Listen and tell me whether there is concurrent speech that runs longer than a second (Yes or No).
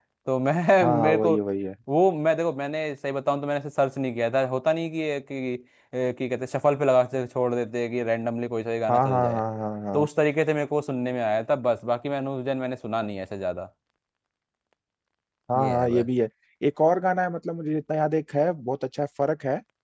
No